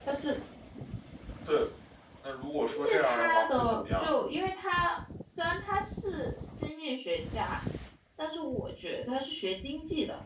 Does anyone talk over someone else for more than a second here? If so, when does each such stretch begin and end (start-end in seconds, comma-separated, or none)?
2.7-4.2